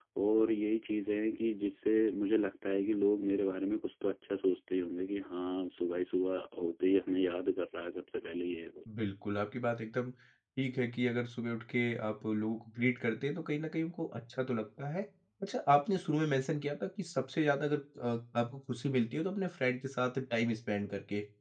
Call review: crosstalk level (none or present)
none